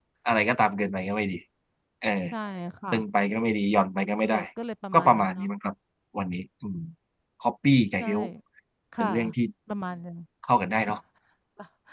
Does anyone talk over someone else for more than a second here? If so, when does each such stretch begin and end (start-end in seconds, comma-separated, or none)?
none